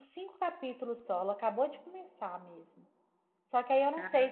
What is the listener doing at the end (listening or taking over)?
listening